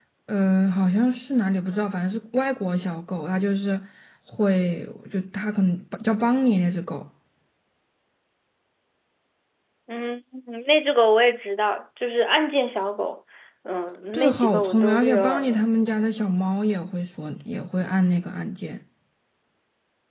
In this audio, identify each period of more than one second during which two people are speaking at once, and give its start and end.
14.1-15.6

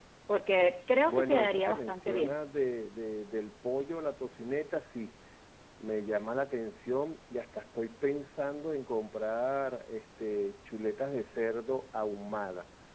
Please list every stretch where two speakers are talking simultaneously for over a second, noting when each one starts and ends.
1.0-2.4

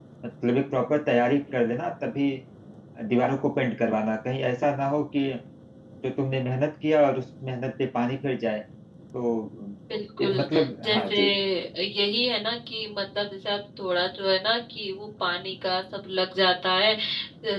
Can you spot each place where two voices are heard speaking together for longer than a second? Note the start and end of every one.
none

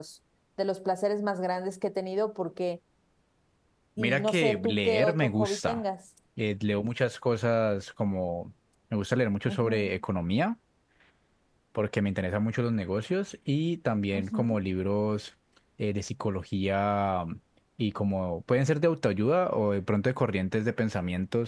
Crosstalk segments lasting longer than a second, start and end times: 4.0-5.8

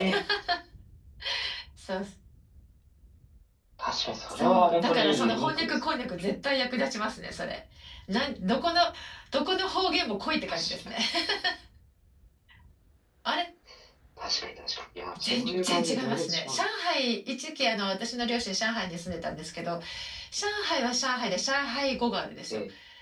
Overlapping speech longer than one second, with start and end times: 4.3-6.0, 15.2-16.6

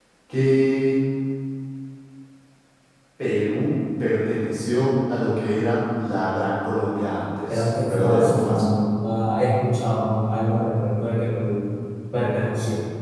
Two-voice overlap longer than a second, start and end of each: 7.5-8.7

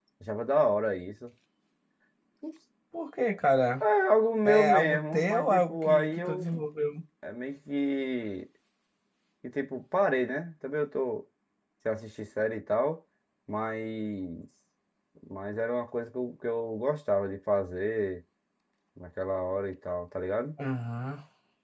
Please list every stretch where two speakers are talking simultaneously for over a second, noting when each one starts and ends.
4.5-6.6

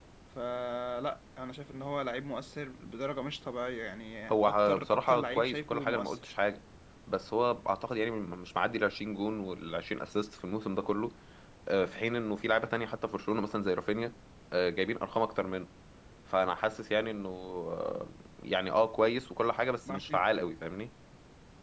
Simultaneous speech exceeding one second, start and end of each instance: 4.3-6.3

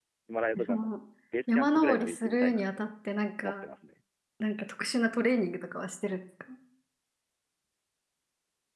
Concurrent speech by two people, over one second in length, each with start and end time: 1.5-2.9

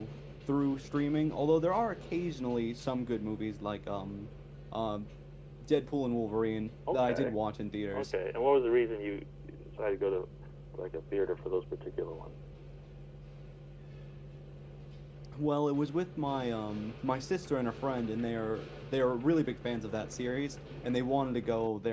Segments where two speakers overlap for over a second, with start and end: none

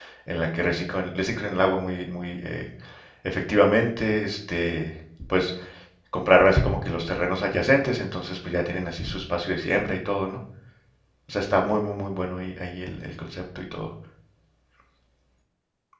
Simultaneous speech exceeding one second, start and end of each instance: none

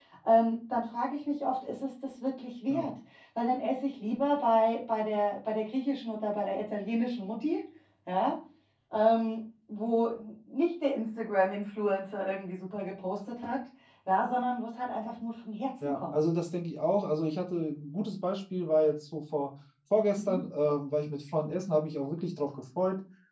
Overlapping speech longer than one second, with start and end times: none

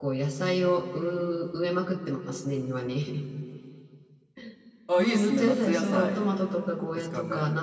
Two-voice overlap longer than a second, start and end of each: 5.0-6.3

